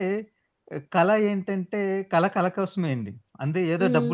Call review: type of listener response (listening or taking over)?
listening